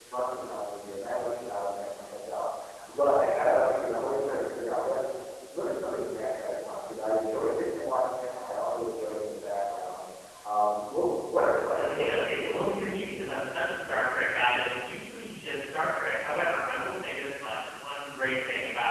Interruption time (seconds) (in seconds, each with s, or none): 11.7 s